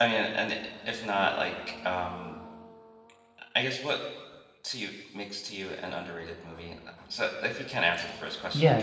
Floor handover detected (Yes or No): Yes